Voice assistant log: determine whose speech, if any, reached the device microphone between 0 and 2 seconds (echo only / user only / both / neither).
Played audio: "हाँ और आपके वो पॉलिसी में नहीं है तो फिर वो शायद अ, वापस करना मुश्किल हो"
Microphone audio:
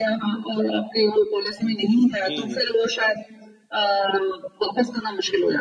echo only